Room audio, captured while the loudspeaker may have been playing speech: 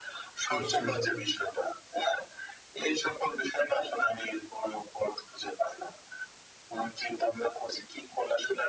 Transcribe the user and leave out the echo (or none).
অবশ্যই।